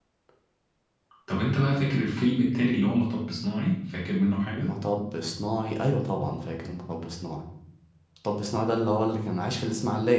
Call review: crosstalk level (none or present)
none